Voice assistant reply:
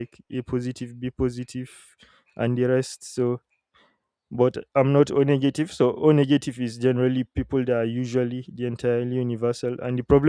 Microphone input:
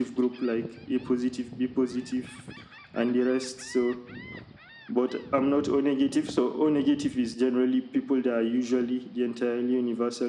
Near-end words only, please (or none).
none